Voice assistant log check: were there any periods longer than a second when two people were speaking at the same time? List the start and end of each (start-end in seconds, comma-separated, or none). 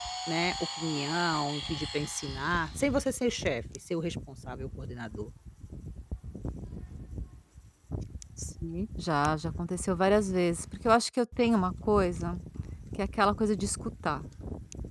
none